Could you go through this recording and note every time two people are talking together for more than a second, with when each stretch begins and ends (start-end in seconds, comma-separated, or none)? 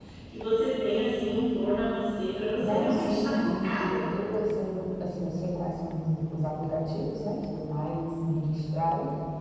2.6-3.9